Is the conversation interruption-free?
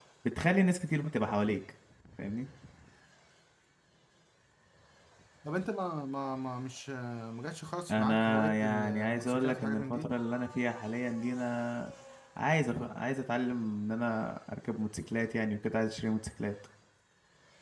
No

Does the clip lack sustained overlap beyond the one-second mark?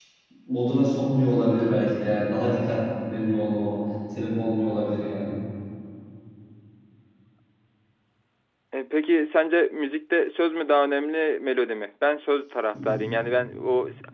Yes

